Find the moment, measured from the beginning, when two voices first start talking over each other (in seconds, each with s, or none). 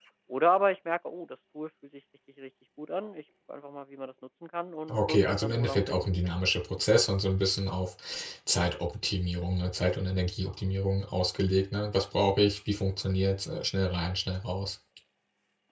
4.9 s